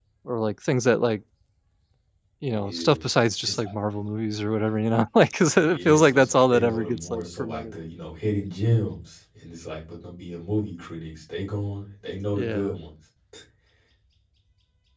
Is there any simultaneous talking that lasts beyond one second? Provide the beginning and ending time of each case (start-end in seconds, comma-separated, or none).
5.5-7.6